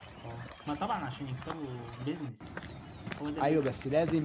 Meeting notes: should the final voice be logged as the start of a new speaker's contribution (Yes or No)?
Yes